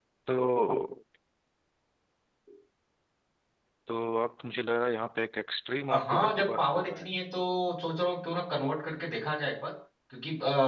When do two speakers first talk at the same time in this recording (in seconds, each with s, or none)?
5.9 s